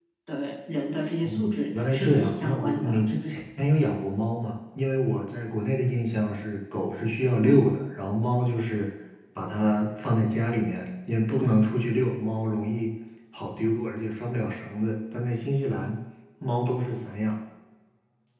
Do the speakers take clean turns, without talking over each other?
No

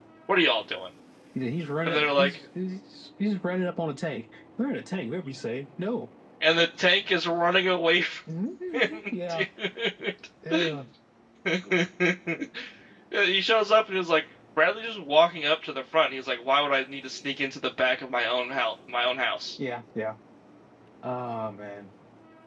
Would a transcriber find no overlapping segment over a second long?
Yes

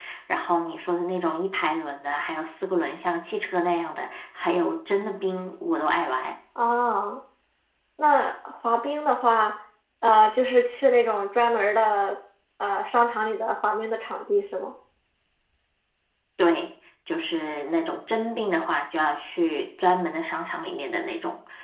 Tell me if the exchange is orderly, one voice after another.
Yes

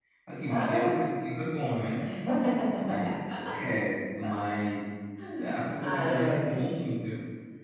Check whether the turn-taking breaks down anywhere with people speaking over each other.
Yes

